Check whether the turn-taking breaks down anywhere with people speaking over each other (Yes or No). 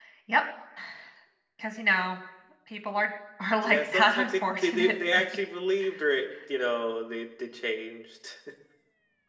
Yes